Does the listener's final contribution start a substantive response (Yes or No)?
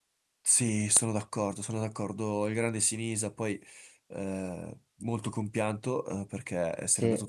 No